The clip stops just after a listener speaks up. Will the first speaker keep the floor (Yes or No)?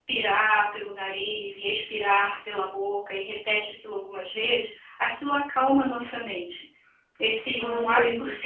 Yes